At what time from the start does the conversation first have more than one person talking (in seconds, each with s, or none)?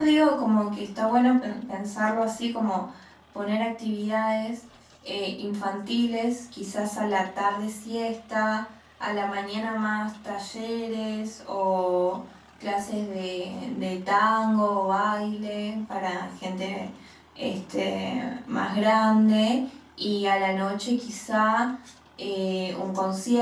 none